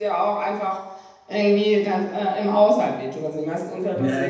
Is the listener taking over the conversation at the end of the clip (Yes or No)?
Yes